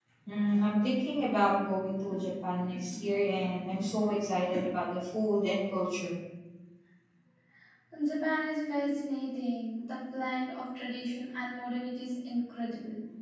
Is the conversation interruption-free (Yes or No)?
Yes